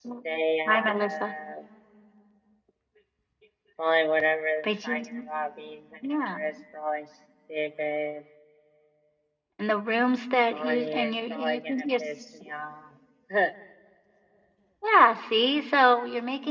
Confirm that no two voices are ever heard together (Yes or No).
No